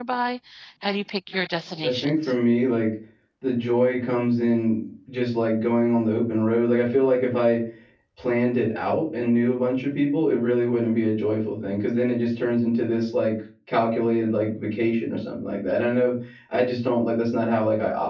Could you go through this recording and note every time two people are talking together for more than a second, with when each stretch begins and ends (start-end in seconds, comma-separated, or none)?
none